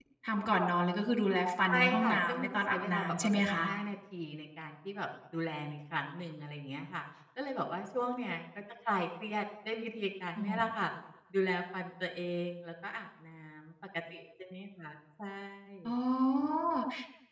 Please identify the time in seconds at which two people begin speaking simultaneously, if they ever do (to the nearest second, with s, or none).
2 s